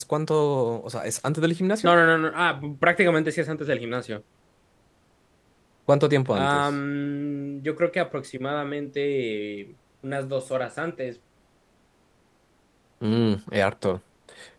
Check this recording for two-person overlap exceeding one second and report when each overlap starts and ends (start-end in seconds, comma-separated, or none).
none